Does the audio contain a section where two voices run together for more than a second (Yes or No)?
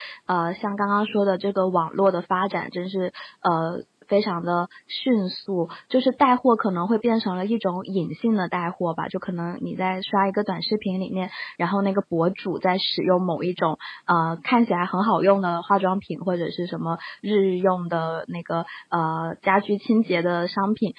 No